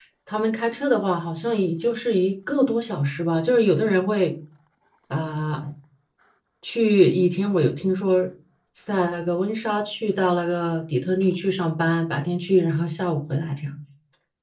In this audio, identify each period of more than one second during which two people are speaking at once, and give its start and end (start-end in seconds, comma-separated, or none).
none